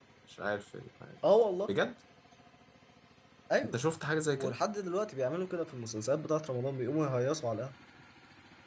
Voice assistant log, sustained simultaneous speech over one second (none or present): none